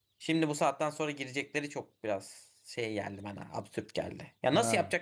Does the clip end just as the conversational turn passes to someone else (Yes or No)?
No